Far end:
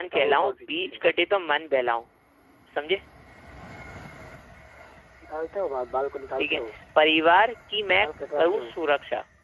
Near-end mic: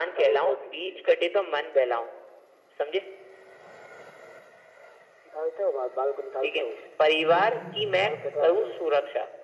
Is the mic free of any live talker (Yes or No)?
No